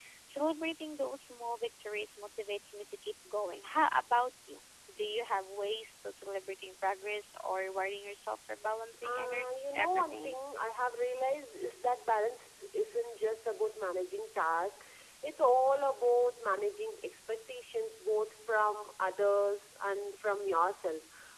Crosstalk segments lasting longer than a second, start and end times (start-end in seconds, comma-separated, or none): 9.0-10.4